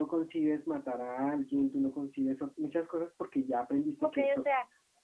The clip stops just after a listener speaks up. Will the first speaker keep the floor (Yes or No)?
No